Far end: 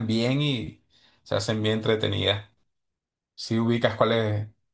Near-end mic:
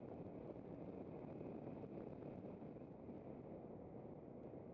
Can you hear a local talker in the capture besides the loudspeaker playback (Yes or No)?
No